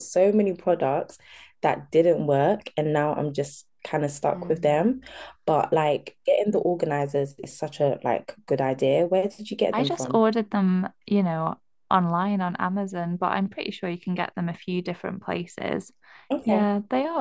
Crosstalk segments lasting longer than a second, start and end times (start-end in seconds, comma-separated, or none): none